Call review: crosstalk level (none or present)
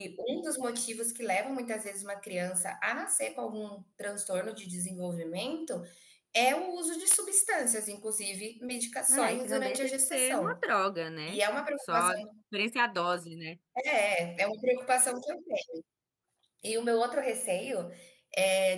present